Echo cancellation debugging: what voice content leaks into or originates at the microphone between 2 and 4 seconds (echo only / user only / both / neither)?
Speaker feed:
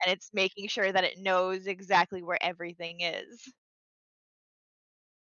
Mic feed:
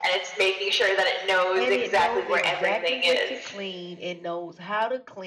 both